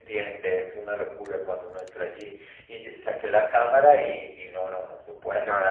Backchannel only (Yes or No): No